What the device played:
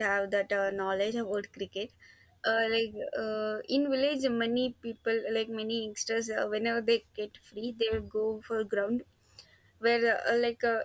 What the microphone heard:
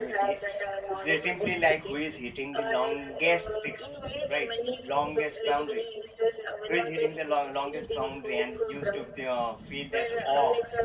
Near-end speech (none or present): present